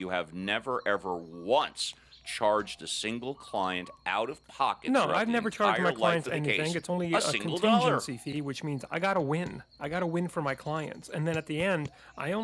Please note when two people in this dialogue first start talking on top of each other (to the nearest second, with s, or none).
5 s